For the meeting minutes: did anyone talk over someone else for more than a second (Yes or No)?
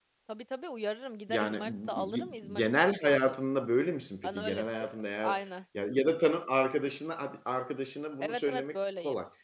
Yes